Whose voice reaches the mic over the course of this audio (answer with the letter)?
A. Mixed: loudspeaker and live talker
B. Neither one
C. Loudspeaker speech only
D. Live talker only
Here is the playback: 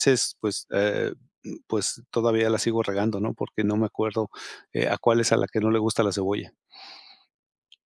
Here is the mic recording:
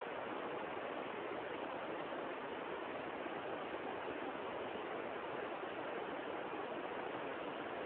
B